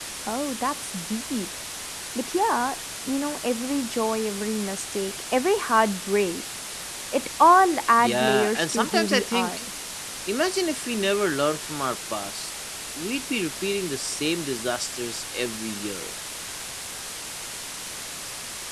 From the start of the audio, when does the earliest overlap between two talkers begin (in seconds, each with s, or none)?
8.0 s